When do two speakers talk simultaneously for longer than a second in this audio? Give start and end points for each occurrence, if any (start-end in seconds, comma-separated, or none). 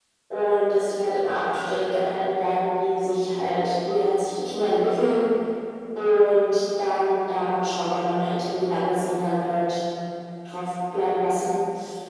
none